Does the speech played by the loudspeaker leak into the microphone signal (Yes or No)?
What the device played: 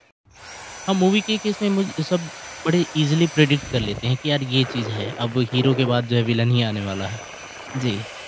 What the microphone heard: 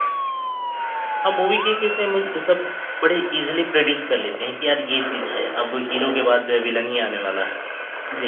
Yes